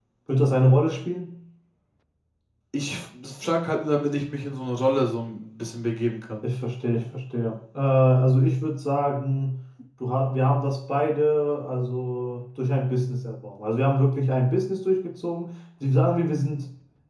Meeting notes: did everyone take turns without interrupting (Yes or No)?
Yes